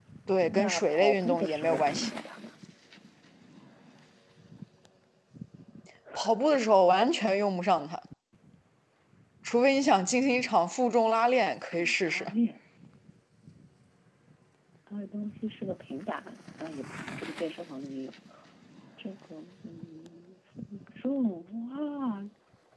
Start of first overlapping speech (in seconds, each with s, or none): 0.5 s